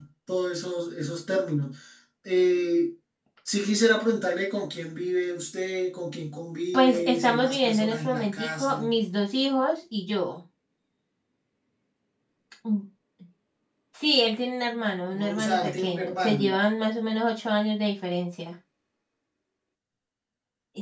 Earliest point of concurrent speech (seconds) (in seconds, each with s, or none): 6.7 s